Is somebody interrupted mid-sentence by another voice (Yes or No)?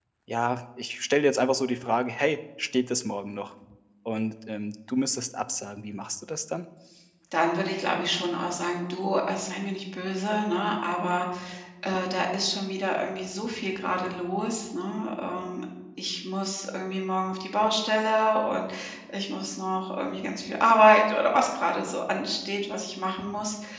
No